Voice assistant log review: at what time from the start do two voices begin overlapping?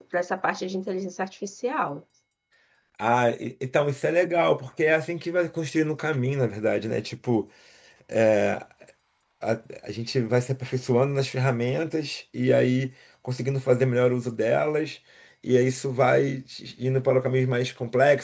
none

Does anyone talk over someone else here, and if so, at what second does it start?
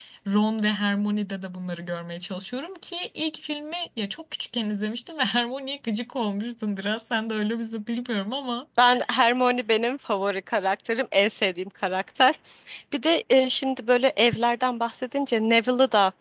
none

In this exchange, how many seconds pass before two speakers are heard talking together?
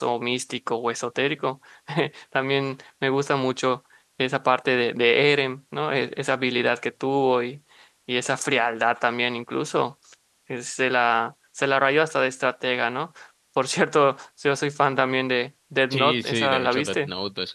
16 s

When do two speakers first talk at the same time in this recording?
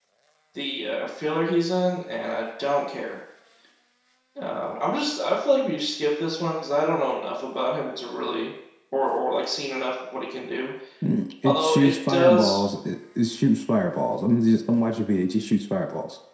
11 s

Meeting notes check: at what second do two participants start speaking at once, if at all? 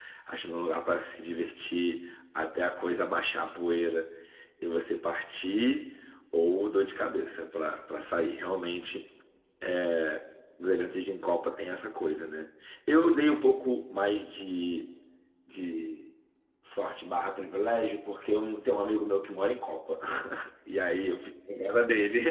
none

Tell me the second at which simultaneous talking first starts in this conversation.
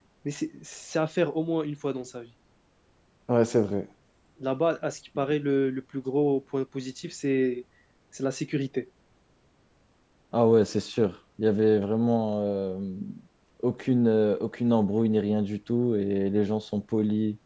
none

